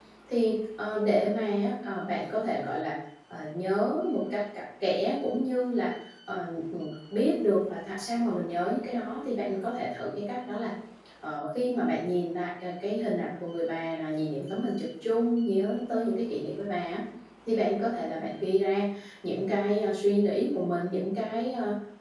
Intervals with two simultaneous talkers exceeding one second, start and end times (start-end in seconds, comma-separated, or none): none